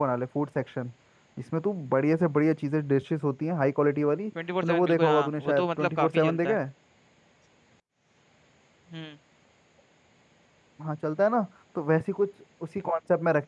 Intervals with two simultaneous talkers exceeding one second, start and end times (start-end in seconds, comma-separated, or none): 4.6-6.6